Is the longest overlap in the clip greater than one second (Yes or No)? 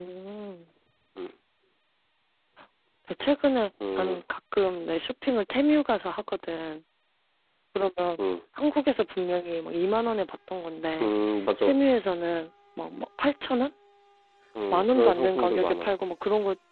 Yes